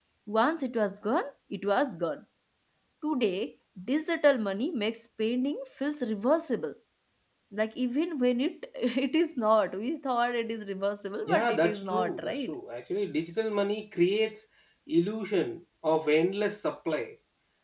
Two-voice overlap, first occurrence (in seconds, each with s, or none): 11.2 s